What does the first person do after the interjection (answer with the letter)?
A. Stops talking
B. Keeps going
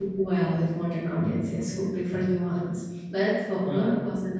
B